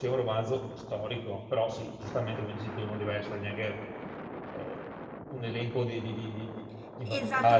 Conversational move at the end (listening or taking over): taking over